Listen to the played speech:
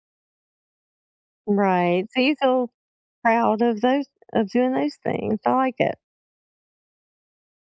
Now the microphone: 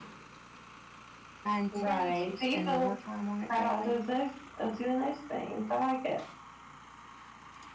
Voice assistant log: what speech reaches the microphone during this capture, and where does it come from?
both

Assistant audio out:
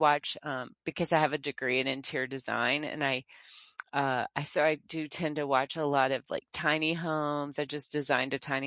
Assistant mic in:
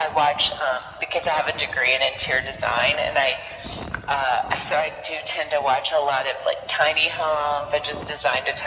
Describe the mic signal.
echo only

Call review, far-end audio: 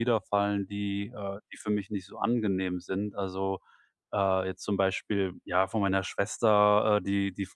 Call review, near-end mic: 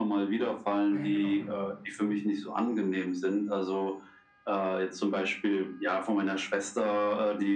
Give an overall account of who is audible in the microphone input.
both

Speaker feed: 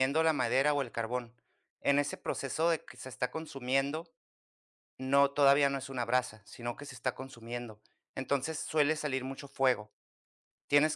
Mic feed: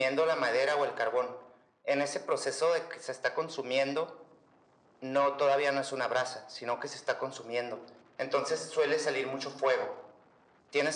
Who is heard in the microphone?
echo only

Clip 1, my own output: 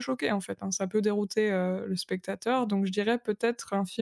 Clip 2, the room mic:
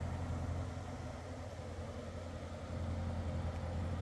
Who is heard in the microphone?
neither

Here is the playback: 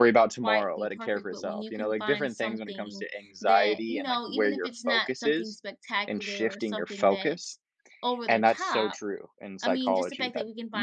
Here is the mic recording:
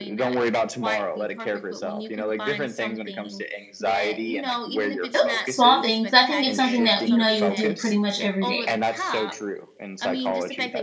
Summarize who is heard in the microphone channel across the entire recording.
both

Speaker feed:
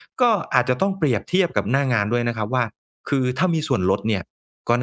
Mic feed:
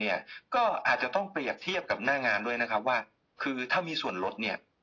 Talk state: echo only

